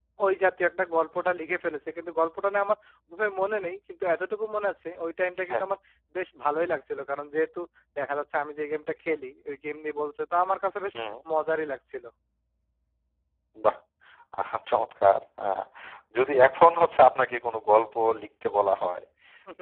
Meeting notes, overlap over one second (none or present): none